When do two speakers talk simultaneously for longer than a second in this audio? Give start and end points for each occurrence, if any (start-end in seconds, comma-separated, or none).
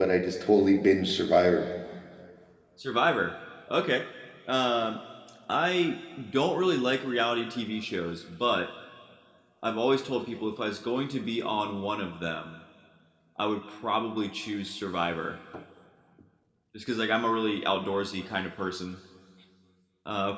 none